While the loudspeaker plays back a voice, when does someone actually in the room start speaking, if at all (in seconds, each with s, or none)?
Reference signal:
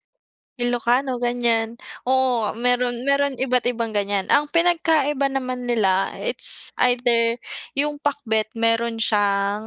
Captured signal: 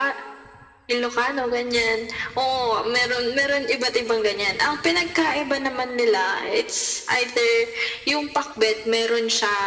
none